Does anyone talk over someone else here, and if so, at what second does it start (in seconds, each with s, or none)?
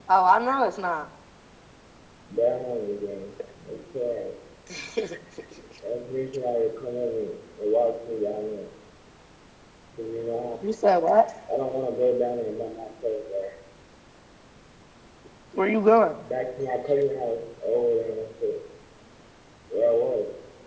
none